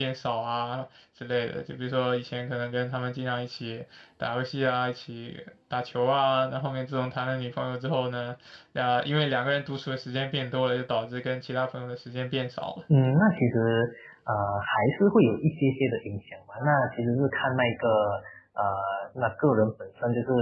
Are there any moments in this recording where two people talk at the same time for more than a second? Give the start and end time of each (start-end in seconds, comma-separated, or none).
none